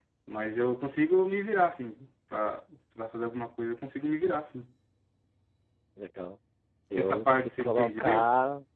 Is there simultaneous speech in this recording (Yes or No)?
Yes